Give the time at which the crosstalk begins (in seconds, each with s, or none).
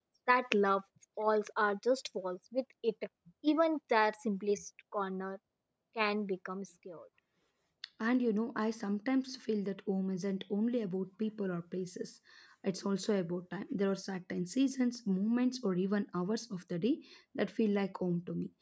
none